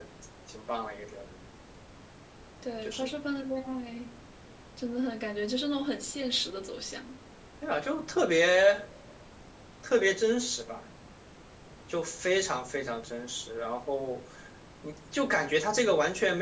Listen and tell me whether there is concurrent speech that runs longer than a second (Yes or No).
No